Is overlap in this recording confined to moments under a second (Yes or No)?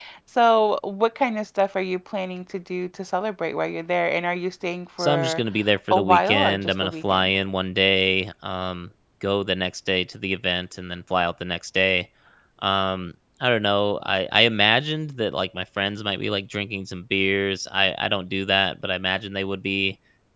No